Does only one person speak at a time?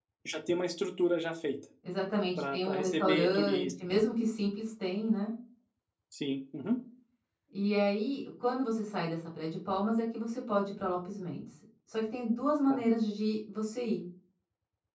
No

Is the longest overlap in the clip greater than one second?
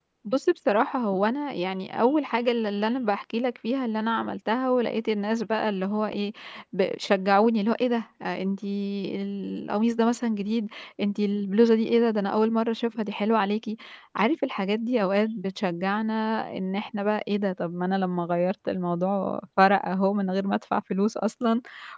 No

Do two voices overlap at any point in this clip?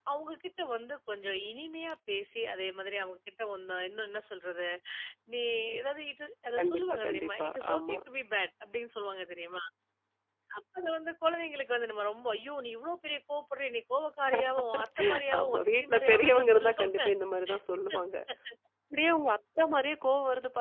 Yes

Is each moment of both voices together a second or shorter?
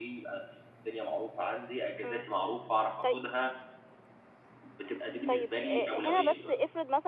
No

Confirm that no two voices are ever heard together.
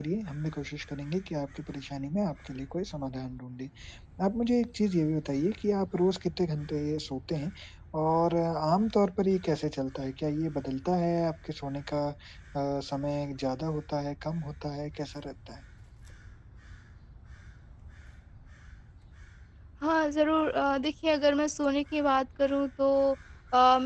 Yes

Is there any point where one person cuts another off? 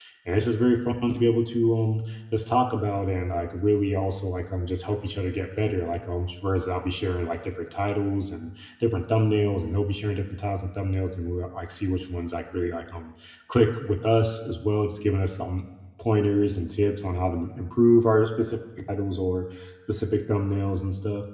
No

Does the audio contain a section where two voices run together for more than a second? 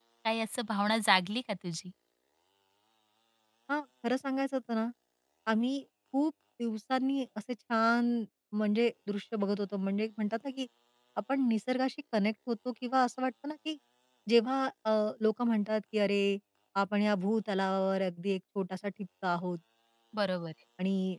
No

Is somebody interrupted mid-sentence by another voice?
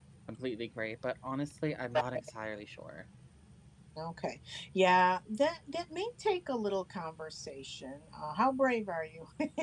No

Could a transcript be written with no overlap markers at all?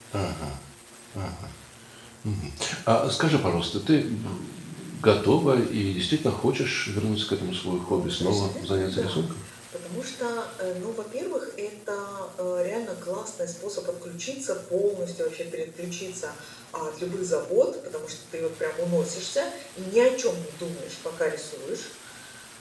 No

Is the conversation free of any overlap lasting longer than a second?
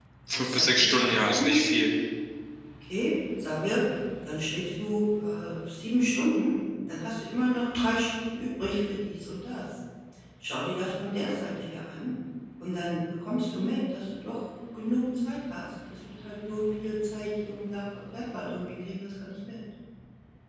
No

